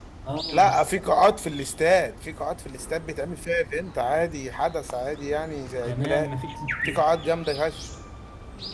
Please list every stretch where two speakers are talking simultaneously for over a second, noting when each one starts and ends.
none

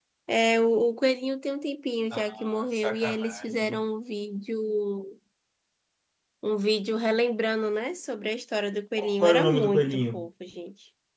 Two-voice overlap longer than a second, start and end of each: 2.1-3.8, 9.0-10.3

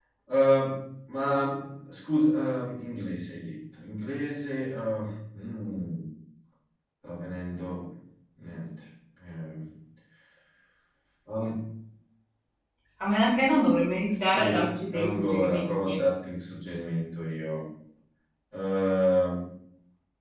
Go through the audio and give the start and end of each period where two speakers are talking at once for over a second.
14.3-15.9

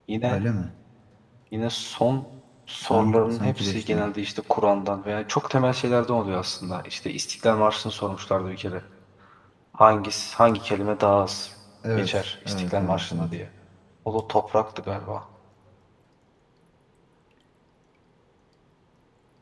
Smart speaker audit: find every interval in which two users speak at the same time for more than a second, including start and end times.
2.8-4.0, 12.0-13.3

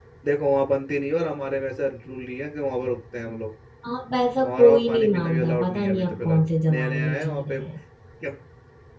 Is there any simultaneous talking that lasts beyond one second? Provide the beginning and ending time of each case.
4.4-7.7

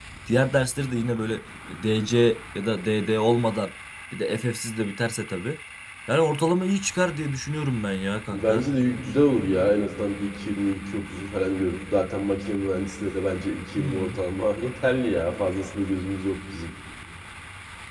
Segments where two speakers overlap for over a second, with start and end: none

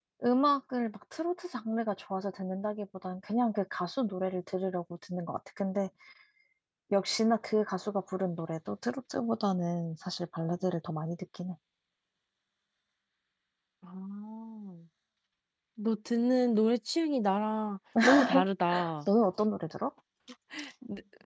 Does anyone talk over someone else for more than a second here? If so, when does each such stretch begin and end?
none

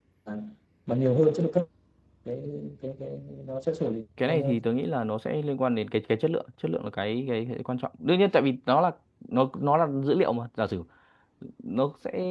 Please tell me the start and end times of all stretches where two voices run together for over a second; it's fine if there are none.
none

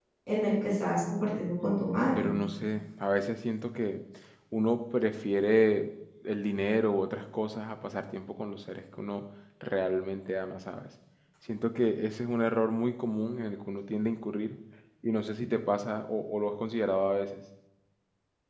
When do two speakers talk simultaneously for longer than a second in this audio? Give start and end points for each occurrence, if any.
none

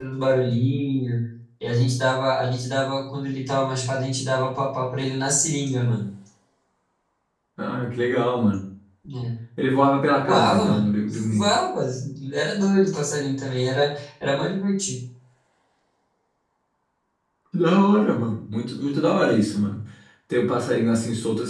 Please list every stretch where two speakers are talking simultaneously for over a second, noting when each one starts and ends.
10.2-11.5

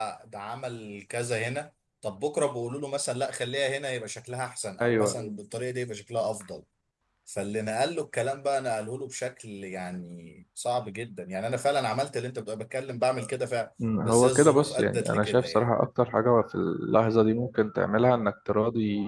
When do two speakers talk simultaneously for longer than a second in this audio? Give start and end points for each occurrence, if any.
14.1-15.7

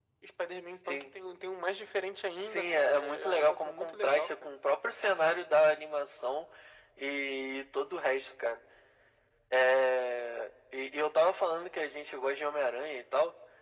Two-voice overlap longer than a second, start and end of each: 2.4-4.5

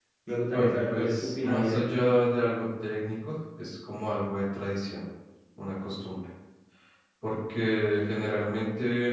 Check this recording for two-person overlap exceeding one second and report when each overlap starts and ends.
0.5-1.8

